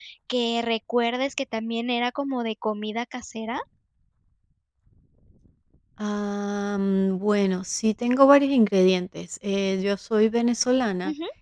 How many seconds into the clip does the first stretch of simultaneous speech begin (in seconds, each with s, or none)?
none